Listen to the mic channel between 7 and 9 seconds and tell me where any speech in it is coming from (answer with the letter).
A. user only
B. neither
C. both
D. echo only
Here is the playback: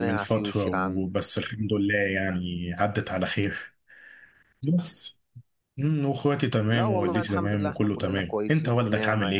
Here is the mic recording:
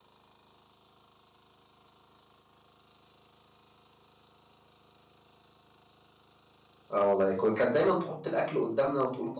A